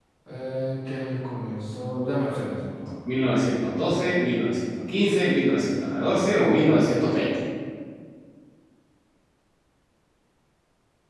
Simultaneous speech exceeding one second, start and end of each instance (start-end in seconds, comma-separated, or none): none